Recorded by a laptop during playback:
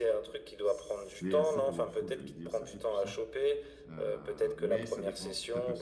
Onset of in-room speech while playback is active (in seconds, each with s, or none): 0.6 s